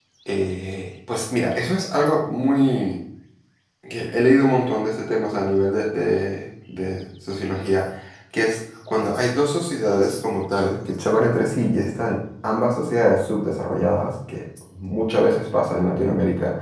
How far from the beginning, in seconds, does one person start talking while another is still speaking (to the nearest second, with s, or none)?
none